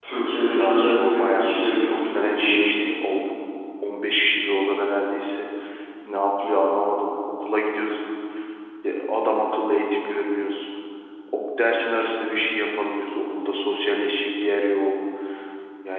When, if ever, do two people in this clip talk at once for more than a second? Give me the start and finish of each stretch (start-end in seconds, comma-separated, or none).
0.5-2.9